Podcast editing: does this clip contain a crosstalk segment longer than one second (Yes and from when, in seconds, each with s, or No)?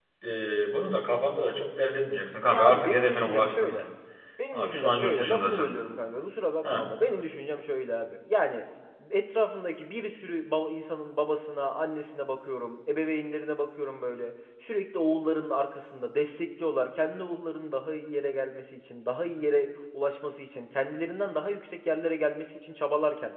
Yes, from 2.5 s